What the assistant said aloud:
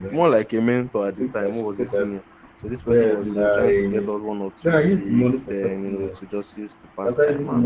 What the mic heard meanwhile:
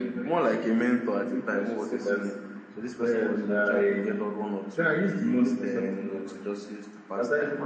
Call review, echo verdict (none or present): present